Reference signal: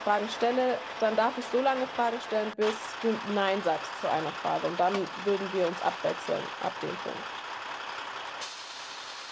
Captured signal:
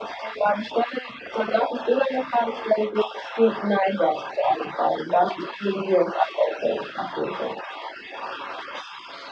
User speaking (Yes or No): No